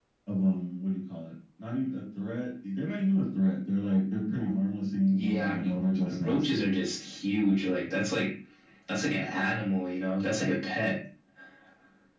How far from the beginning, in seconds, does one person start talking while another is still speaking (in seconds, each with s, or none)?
5.1 s